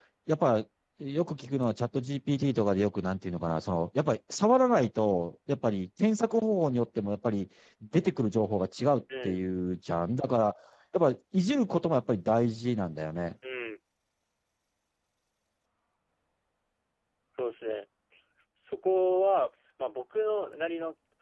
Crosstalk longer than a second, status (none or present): none